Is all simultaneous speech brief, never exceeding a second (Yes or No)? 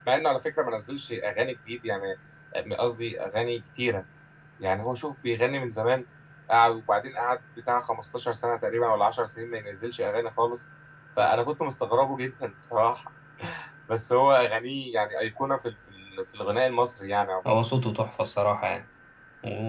Yes